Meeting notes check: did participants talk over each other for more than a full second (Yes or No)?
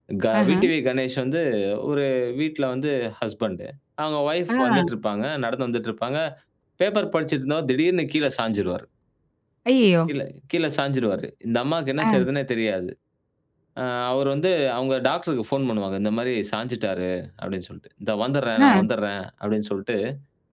No